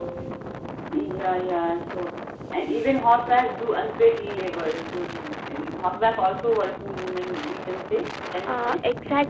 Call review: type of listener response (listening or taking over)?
taking over